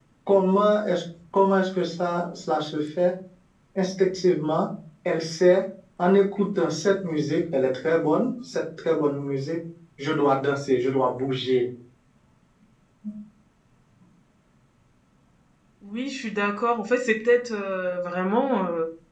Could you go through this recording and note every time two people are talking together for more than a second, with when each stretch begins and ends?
none

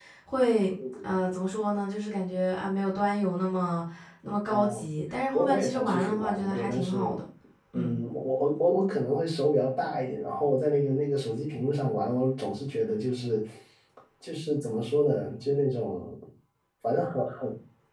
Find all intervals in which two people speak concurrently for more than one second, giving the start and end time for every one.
5.3-7.2

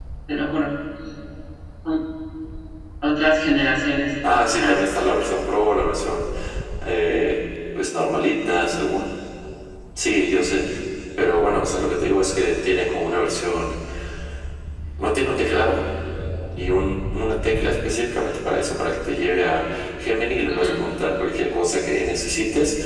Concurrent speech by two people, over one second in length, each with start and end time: none

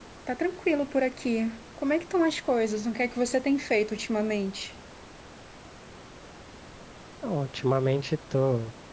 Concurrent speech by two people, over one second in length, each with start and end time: none

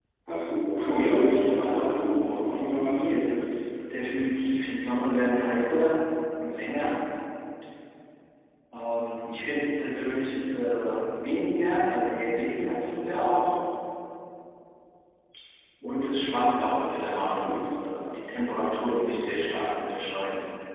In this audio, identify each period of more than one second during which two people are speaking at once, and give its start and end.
0.9-3.2

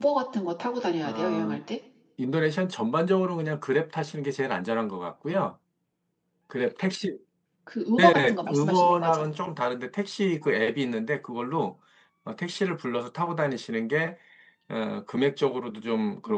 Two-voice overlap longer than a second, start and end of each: 8.0-9.2

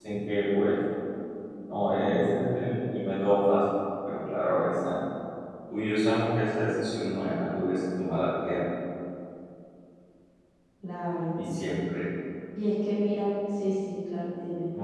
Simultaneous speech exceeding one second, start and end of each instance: none

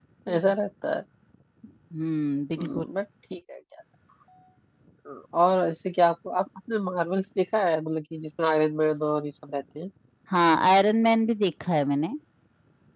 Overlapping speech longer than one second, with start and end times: none

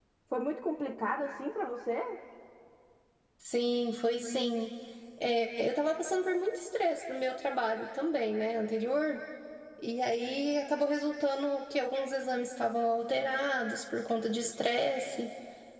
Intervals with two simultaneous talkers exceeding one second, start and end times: none

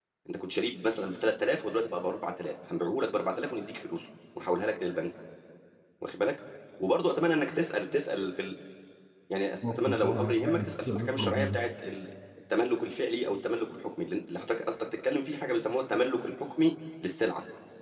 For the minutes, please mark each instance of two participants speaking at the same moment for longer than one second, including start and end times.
9.7-11.6

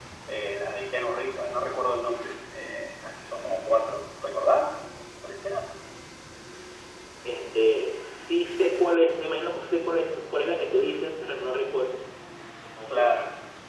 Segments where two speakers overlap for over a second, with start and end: none

